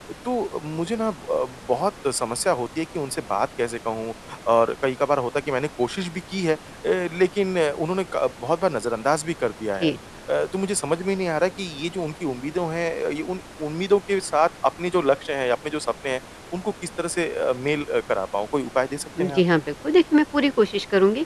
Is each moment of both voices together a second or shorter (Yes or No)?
Yes